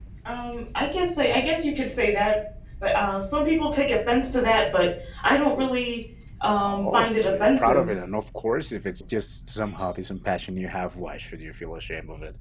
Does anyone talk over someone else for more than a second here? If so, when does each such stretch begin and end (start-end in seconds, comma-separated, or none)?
6.6-7.9